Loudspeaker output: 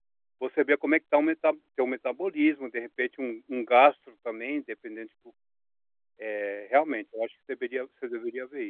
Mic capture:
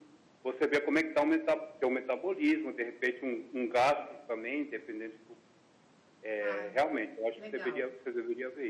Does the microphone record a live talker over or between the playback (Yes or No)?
Yes